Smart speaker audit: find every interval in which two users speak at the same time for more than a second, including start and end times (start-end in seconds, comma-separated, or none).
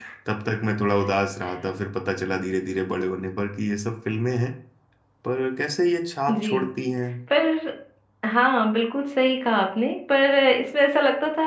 none